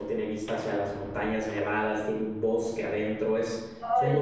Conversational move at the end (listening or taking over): taking over